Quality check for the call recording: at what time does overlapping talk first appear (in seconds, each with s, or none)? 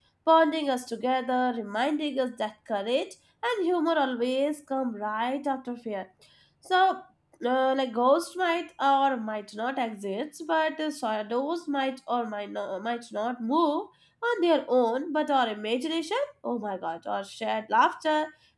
none